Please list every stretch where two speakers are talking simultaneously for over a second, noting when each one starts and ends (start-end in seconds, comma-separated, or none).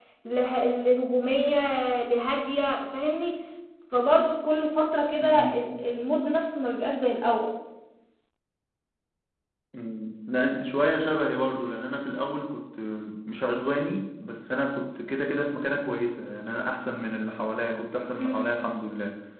none